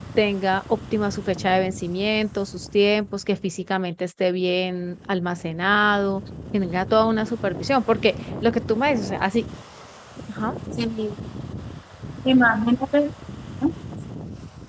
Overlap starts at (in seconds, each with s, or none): none